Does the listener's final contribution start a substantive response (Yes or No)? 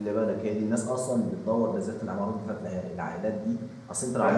No